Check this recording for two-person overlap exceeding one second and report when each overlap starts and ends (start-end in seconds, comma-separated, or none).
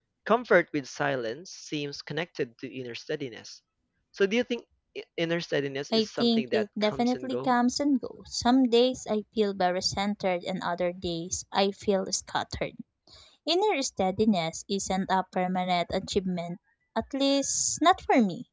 5.9-7.5